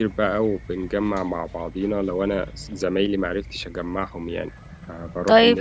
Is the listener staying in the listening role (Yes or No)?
No